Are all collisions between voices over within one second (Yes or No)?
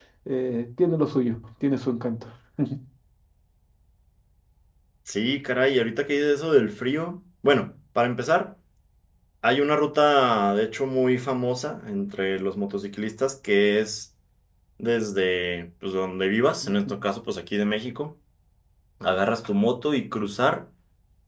Yes